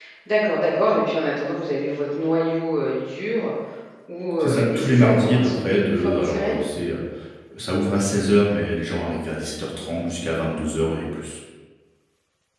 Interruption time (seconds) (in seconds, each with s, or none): 4.4 s